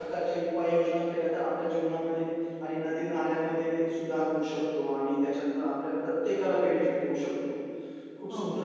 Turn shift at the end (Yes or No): No